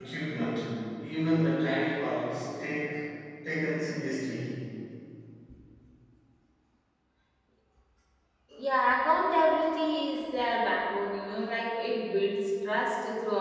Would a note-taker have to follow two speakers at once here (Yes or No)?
No